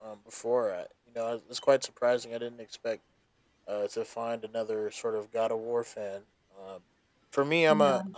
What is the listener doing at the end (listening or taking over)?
listening